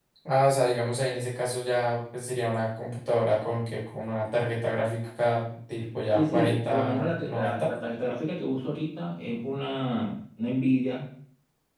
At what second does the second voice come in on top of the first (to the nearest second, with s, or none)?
6 s